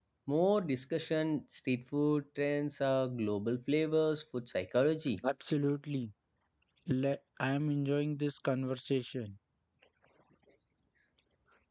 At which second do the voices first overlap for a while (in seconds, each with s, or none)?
none